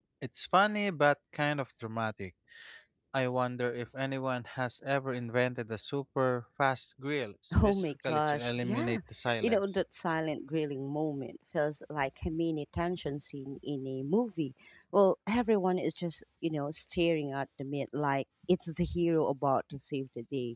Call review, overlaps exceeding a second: present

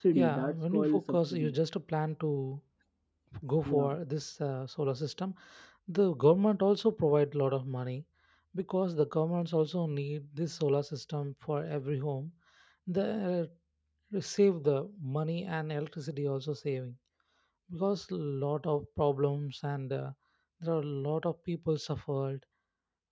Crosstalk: present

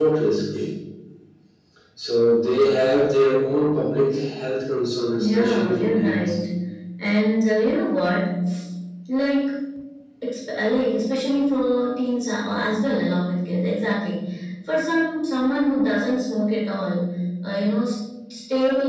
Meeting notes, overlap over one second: present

